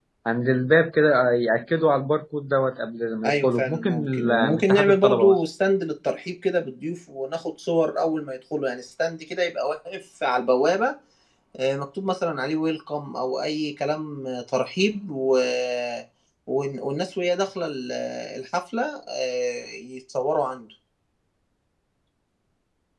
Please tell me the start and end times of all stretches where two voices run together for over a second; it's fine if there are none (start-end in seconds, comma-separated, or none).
3.2-5.4